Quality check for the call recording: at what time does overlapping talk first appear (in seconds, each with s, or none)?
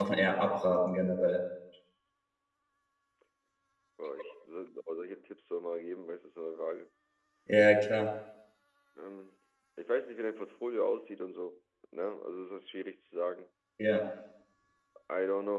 none